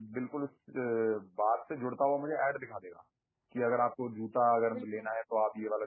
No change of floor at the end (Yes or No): Yes